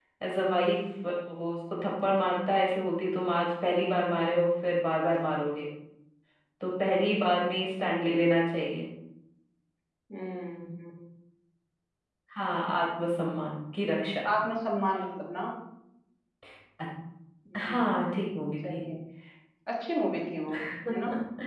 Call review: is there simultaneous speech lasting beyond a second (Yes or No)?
No